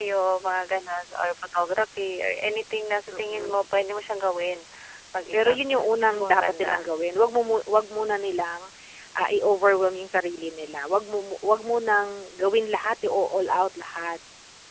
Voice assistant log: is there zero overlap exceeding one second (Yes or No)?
No